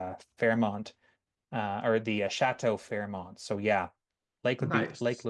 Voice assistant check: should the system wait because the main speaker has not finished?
Yes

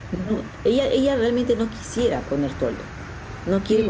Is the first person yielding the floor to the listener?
Yes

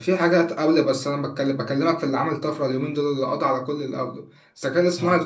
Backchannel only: Yes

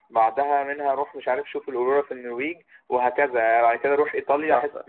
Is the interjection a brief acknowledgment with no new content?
No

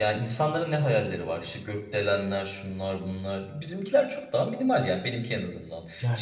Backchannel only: Yes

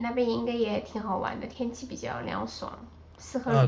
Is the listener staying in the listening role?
No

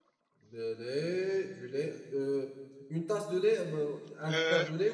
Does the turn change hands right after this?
Yes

